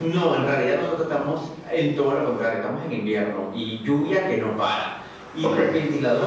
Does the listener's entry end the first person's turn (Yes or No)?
No